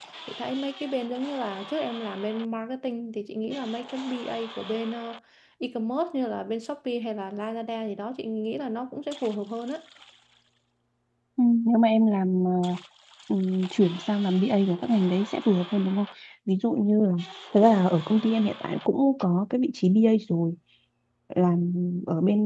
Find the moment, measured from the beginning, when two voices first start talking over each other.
none

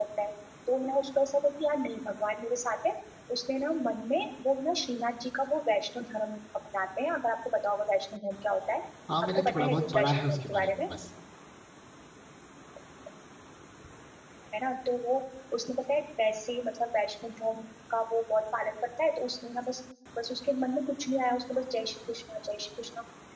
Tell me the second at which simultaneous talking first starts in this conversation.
9.4 s

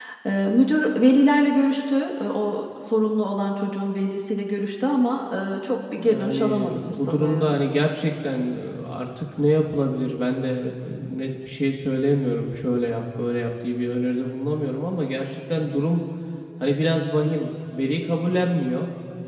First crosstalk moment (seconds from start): 6.0 s

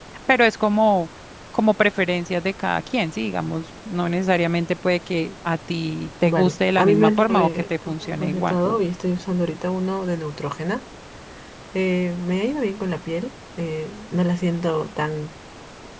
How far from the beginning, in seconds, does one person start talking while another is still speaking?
6.2 s

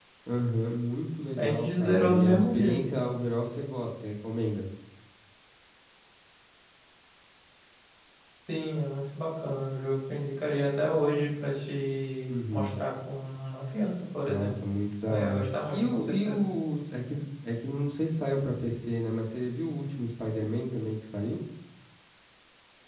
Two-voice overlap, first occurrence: 1.4 s

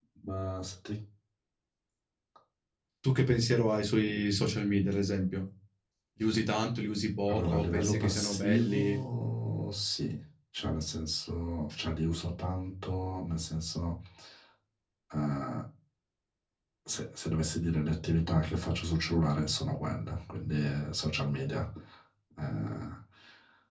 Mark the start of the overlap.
7.3 s

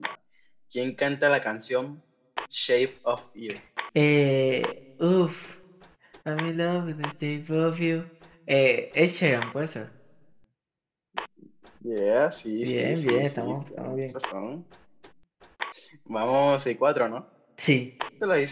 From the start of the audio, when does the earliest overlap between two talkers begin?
12.6 s

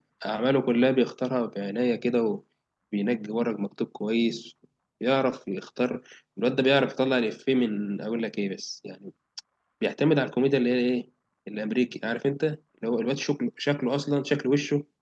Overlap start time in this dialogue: none

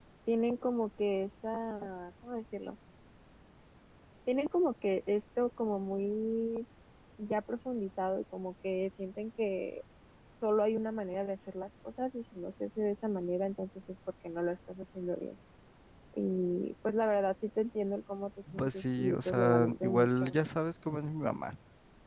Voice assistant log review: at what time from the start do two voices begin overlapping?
18.5 s

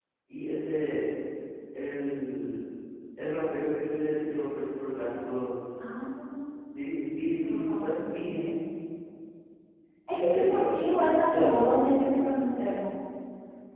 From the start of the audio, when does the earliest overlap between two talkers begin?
7.3 s

